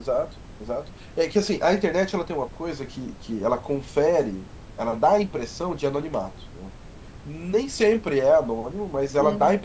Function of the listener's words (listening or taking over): listening